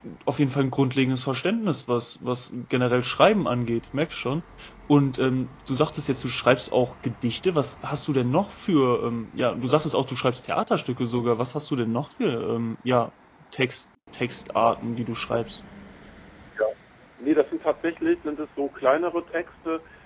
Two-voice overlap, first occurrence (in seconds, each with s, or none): none